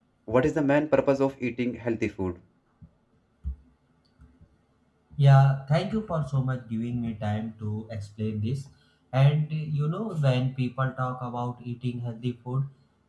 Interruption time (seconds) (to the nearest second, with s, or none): none